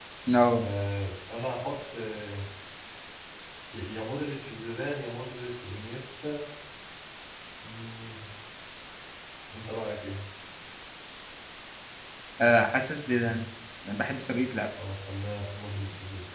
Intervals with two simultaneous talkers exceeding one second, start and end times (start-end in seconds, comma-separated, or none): none